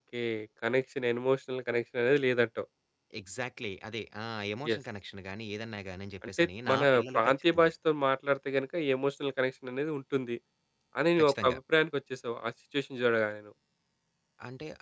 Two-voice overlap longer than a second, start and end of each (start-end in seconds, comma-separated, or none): 6.3-7.7